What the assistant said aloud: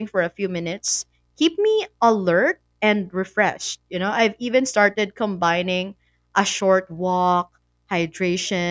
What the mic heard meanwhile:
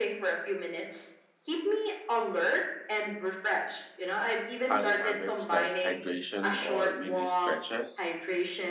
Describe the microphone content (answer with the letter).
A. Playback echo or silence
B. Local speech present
B